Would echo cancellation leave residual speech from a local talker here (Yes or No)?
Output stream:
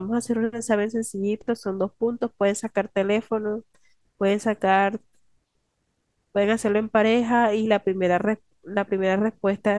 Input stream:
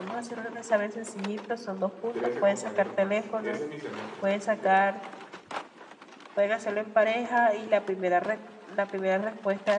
Yes